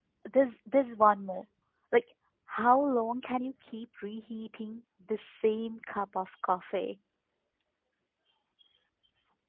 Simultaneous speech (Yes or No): No